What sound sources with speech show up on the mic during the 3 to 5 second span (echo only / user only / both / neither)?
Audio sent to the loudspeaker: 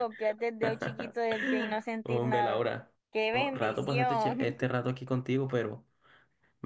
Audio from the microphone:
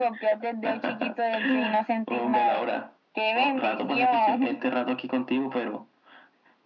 echo only